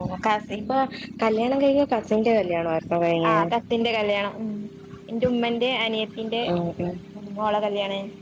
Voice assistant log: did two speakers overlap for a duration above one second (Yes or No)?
No